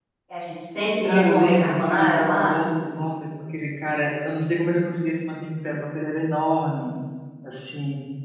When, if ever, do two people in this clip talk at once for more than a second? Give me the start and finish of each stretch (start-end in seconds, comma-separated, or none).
1.0-2.6